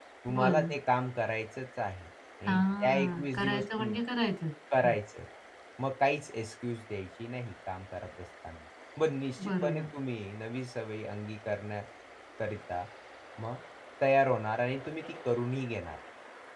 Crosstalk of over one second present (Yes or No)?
Yes